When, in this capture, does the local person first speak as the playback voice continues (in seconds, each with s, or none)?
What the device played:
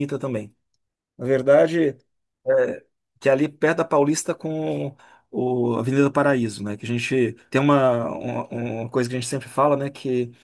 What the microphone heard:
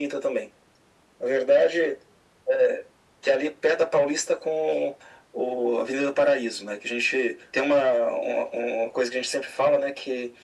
none